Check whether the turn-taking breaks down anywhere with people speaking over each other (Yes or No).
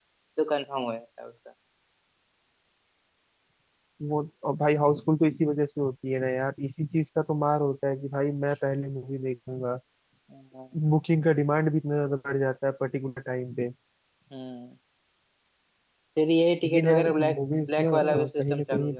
Yes